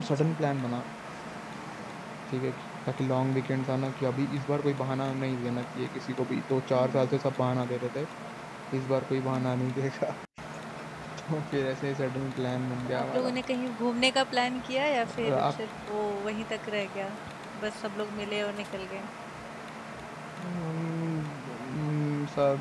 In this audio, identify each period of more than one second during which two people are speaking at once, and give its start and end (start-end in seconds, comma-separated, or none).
none